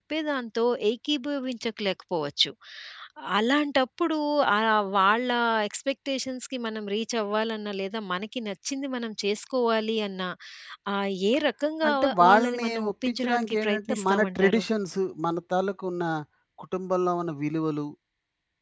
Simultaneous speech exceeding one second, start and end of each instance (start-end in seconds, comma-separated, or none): 11.9-14.6